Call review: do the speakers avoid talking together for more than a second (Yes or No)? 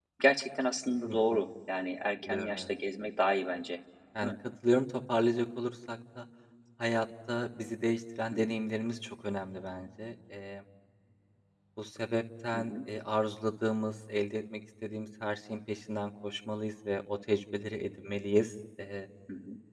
Yes